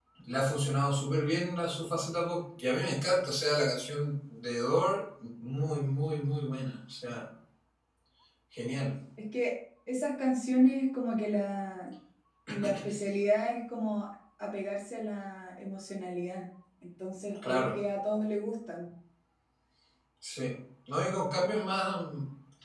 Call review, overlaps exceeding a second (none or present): none